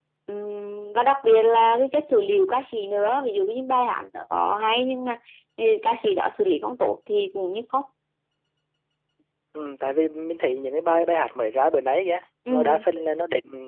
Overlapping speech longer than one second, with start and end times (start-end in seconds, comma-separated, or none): none